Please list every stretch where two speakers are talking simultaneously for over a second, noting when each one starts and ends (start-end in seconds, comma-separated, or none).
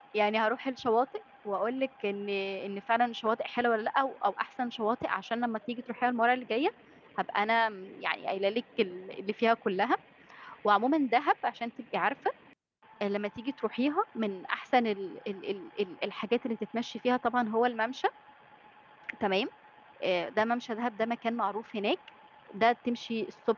none